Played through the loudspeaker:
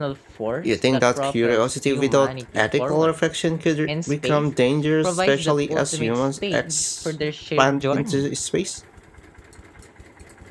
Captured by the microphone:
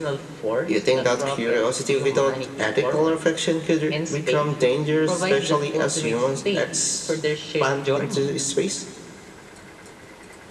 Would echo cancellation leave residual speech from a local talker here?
No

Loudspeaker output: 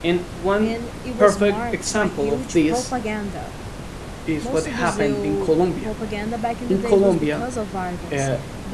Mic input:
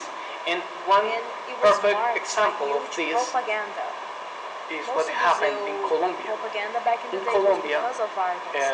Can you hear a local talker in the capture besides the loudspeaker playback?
No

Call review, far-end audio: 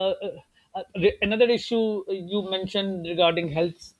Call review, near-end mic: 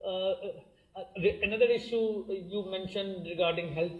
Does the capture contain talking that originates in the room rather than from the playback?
No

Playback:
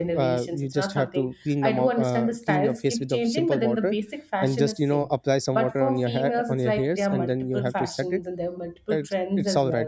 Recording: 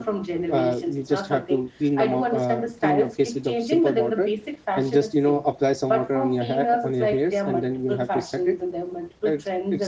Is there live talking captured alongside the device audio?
No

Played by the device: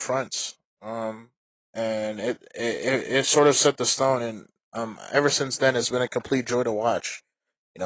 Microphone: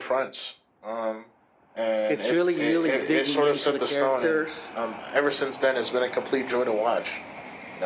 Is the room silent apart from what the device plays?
No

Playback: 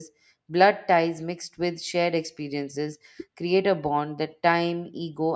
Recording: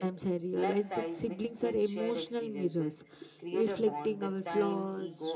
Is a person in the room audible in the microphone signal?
Yes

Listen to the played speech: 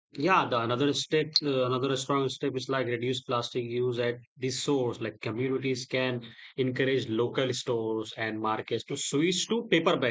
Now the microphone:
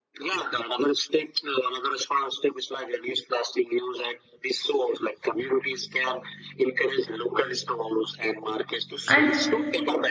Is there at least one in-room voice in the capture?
Yes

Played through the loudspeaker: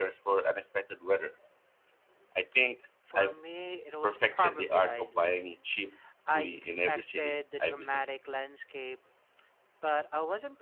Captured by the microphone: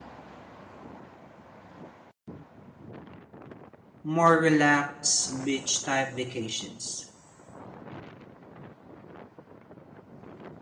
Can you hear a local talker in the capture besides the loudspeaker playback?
Yes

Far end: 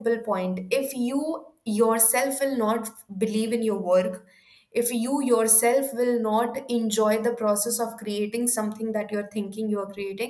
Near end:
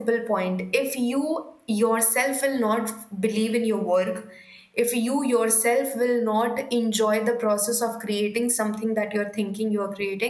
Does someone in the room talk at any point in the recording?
No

